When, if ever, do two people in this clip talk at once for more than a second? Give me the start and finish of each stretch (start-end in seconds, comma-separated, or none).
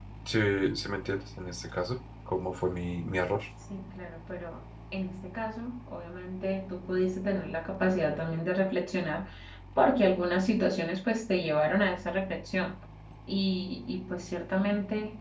none